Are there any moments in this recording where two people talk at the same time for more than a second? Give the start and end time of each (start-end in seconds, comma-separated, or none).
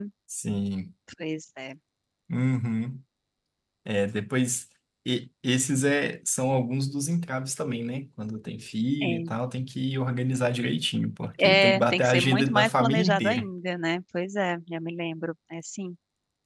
11.4-13.5